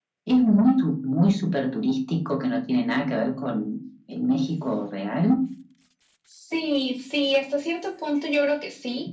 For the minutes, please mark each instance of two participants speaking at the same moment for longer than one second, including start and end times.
none

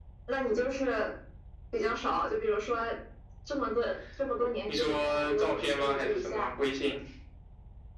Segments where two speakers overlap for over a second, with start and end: 4.7-6.5

